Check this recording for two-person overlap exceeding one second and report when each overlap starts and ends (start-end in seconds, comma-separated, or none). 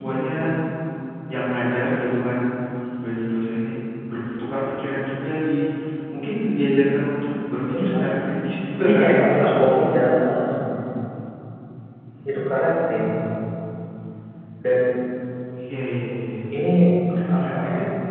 8.8-10.0